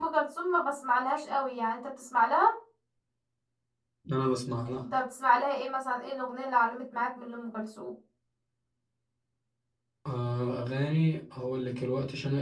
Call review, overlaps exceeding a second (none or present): none